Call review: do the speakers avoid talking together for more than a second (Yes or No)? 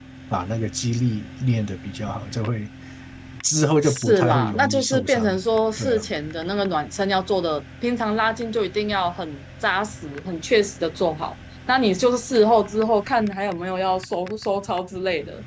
No